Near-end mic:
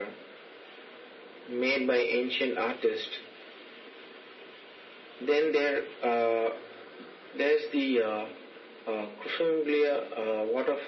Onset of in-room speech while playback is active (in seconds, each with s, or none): none